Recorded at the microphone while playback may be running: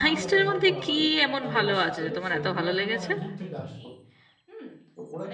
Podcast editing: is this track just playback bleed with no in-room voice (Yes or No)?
No